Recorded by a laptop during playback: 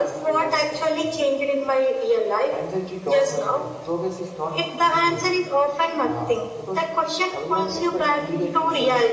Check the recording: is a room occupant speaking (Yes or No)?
Yes